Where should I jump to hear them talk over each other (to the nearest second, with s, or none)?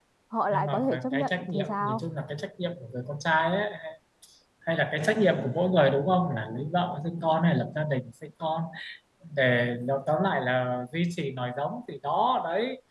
1 s